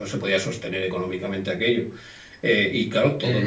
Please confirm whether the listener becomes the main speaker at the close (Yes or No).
Yes